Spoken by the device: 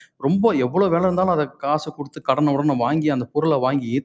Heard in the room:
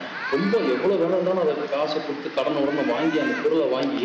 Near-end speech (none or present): none